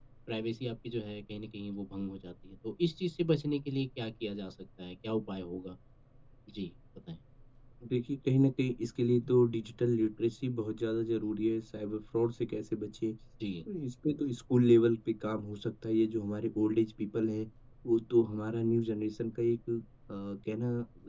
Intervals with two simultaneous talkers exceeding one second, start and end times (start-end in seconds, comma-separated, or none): none